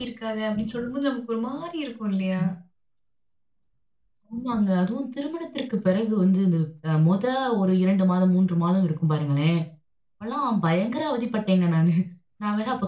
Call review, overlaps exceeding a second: none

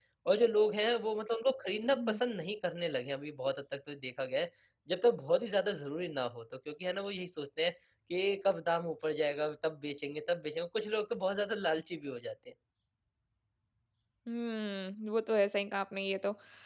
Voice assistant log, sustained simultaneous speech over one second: none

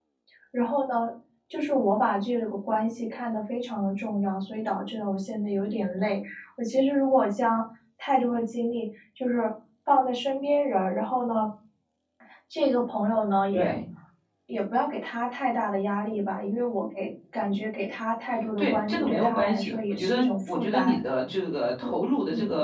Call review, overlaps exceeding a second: present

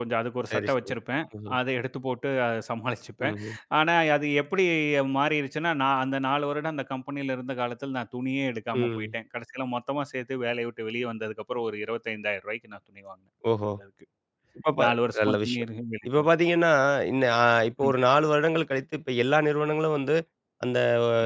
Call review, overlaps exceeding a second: none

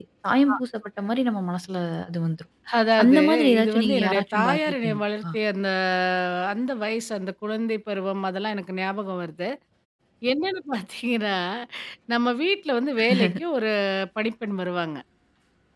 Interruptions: present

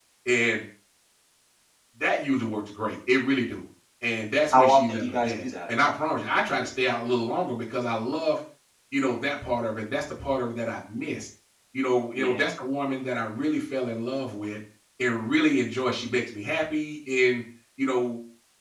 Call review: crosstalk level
present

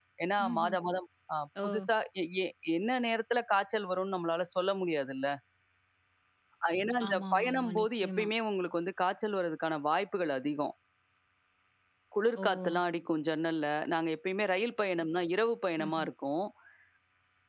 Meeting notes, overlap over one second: present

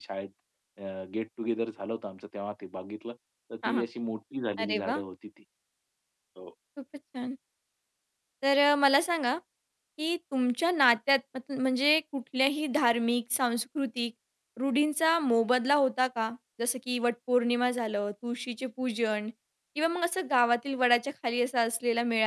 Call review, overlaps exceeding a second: none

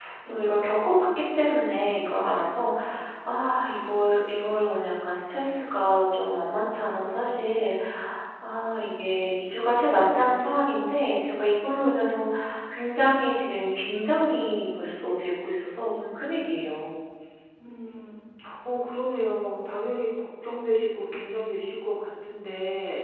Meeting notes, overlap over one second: none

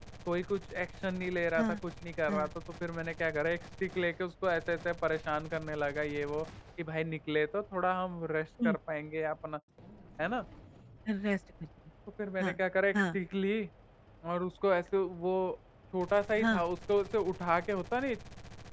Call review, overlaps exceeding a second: none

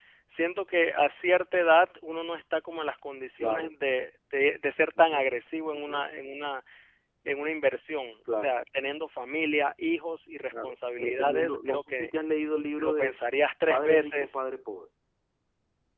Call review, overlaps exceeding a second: present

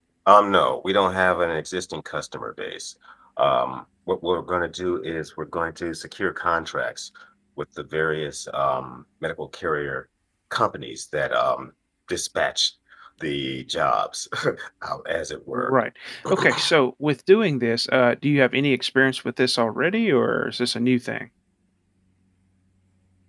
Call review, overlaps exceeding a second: none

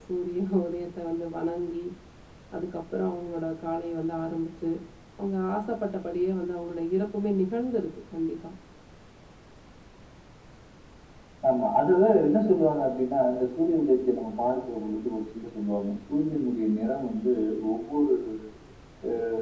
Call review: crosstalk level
none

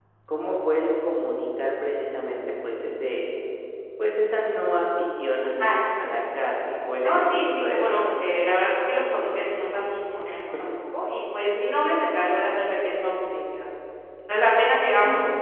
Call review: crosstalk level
present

